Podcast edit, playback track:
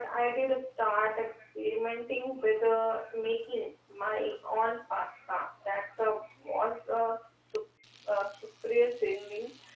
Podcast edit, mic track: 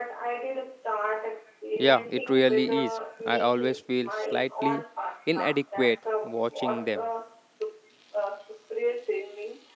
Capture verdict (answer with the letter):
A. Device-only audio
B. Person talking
B